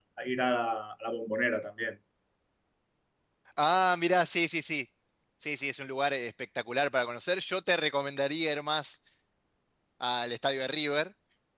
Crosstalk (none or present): none